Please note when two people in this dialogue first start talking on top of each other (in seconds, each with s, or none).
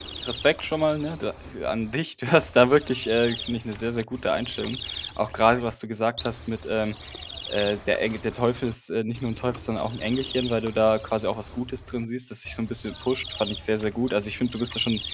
none